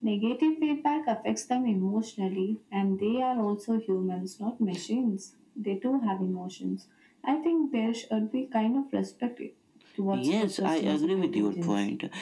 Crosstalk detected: Yes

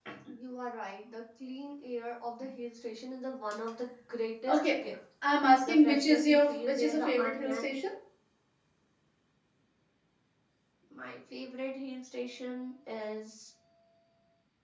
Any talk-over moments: Yes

